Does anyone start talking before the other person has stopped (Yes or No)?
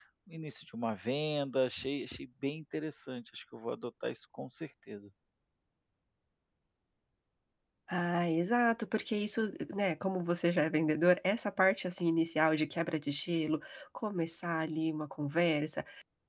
No